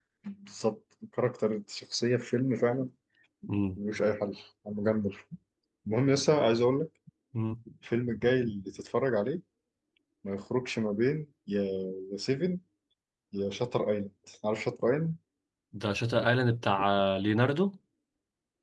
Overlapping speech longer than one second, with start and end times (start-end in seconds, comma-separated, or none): none